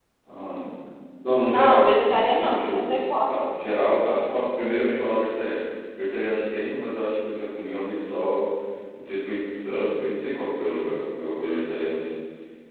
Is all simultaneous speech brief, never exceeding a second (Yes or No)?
No